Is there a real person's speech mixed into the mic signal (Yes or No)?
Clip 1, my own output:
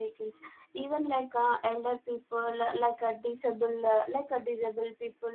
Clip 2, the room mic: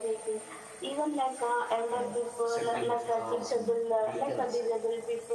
Yes